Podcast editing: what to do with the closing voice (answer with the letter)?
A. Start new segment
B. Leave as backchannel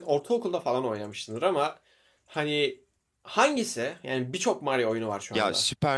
A